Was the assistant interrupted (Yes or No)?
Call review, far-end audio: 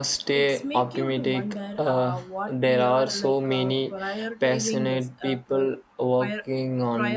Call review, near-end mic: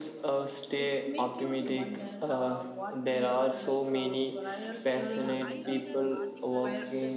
Yes